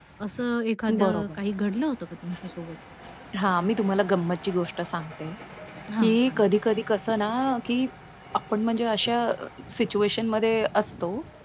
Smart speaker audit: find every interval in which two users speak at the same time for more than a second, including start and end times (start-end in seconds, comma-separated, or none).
none